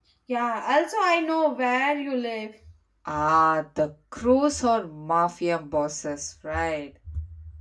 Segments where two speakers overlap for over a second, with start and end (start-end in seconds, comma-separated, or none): none